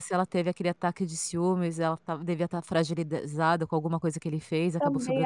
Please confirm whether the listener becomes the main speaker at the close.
Yes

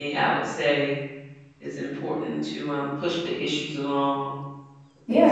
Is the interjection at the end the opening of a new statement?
Yes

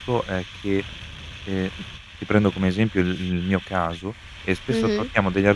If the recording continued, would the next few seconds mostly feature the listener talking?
No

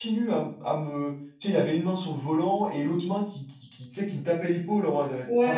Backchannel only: No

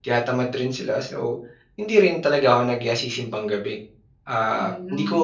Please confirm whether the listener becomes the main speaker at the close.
No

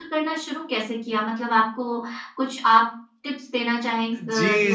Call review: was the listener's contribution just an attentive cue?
No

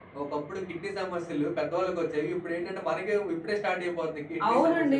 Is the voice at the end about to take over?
Yes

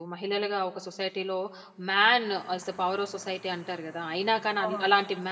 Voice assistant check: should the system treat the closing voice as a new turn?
No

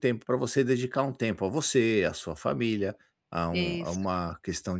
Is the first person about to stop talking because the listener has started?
No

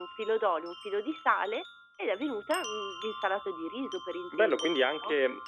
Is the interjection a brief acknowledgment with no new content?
No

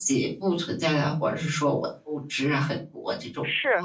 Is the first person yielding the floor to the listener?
Yes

